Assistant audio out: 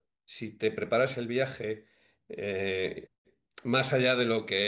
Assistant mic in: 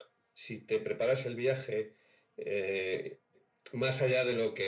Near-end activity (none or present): none